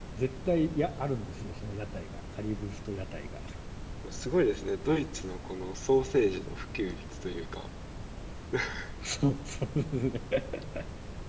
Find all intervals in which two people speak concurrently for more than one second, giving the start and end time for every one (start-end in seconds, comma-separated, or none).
none